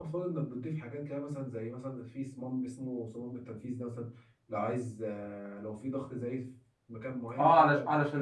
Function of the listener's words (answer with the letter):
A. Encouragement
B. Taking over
B